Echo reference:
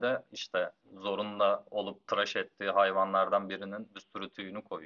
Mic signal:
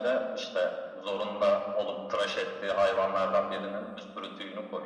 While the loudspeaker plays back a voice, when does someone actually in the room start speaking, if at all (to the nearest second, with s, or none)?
none